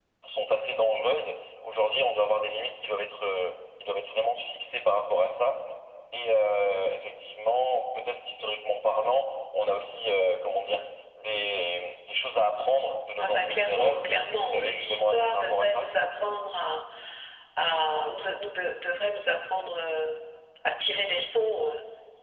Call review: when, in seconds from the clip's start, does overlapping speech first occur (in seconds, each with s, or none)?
13.2 s